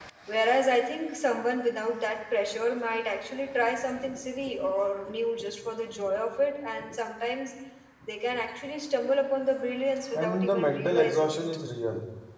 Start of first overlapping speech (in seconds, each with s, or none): 10.1 s